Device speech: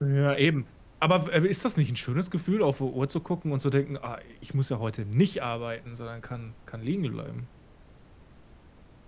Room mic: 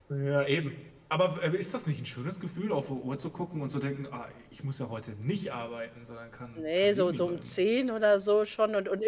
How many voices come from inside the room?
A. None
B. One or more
B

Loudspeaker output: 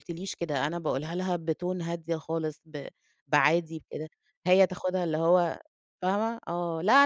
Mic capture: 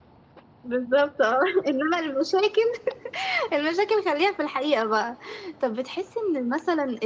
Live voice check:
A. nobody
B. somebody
B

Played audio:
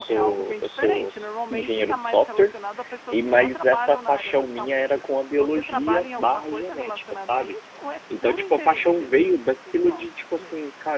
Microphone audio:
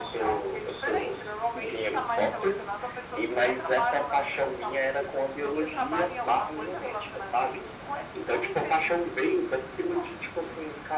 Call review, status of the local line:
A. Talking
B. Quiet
B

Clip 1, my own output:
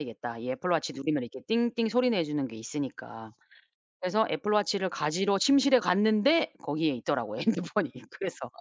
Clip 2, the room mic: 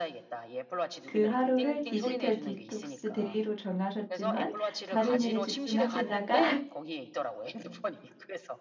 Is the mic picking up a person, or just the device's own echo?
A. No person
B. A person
B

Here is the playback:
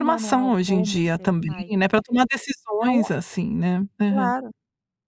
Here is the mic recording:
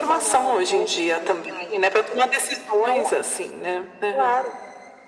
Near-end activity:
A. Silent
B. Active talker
A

